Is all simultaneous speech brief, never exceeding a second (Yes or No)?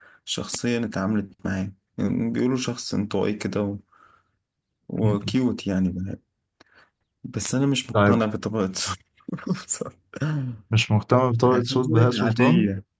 No